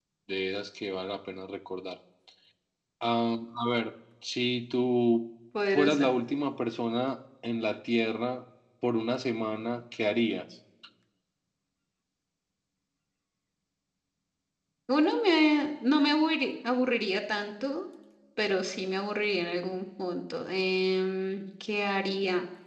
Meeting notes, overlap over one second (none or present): none